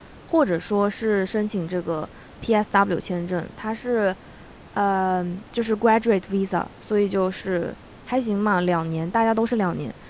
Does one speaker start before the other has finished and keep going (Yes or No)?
No